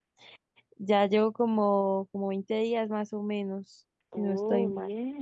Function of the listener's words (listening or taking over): taking over